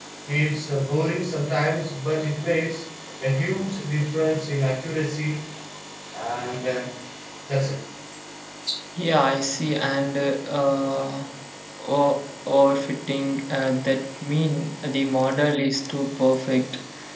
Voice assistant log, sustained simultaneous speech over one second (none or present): none